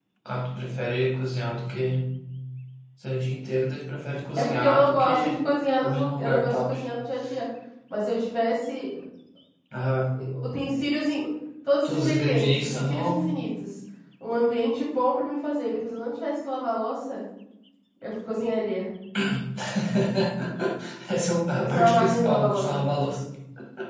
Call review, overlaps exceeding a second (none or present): present